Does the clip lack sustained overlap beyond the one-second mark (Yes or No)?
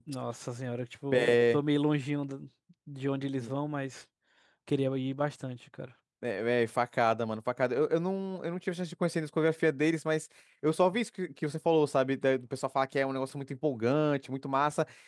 Yes